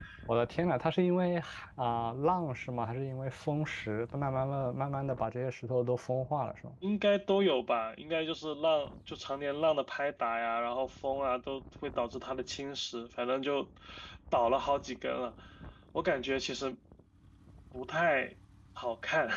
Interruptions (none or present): none